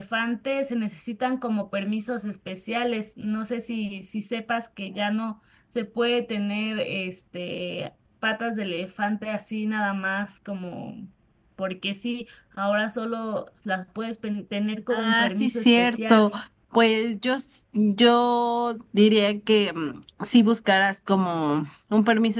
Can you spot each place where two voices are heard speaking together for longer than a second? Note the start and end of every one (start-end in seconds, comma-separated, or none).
14.9-16.3